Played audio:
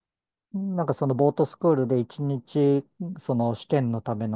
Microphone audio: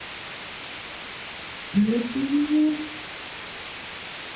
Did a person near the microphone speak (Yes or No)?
Yes